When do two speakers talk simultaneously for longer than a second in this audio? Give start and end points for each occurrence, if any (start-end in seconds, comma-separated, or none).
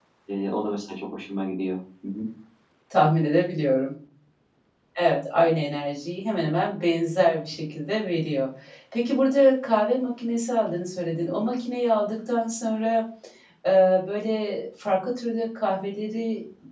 none